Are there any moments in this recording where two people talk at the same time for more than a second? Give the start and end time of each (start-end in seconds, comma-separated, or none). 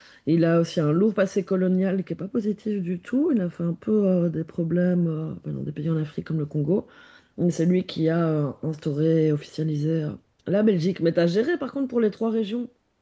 none